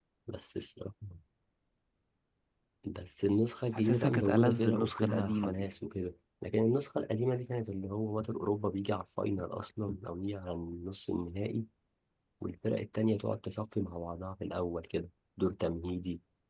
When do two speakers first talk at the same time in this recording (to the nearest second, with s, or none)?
4 s